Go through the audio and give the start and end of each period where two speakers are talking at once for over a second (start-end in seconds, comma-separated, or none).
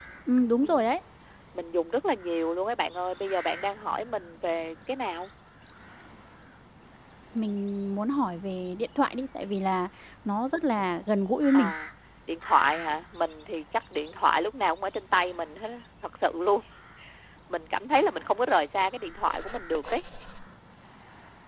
none